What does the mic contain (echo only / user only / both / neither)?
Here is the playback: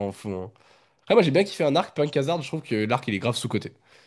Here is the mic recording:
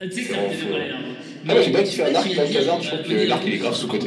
both